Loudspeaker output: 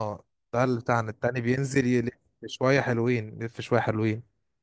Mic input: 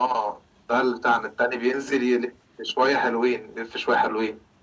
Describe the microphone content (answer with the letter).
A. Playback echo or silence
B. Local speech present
A